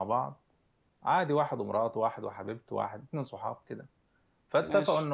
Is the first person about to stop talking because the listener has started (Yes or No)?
No